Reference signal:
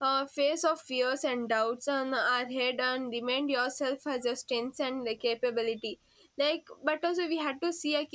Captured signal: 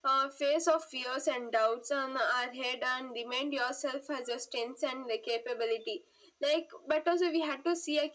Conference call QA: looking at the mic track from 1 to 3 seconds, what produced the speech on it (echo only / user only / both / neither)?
echo only